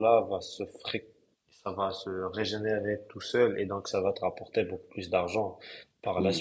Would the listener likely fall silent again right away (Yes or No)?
No